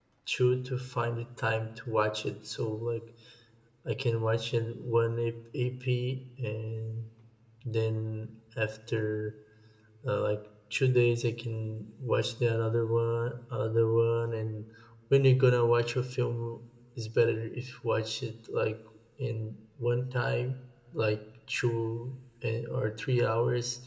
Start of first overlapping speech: none

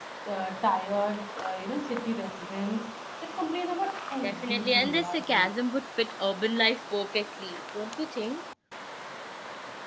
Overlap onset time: 4.2 s

